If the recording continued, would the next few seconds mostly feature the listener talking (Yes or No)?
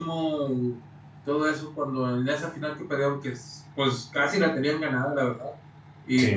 No